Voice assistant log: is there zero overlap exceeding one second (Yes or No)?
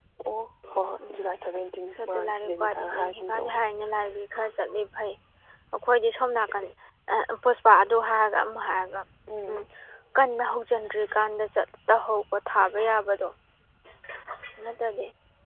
No